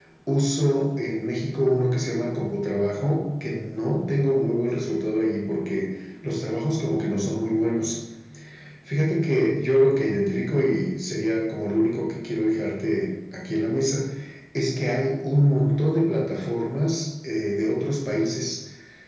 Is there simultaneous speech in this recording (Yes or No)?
No